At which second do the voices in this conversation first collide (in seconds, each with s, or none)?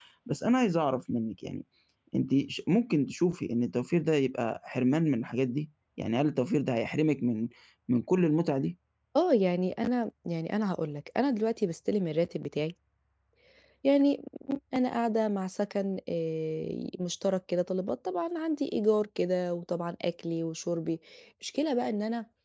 none